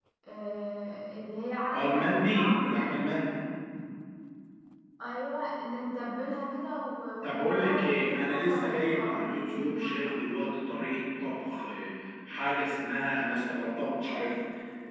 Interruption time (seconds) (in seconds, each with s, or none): 1.7 s